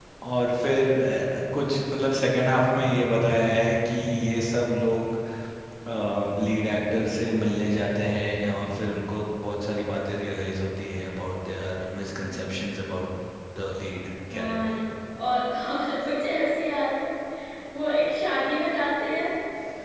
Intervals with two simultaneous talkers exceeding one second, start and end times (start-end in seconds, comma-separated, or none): none